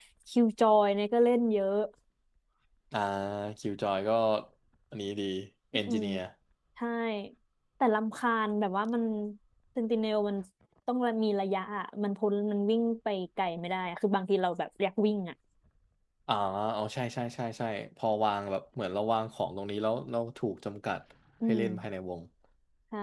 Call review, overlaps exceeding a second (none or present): none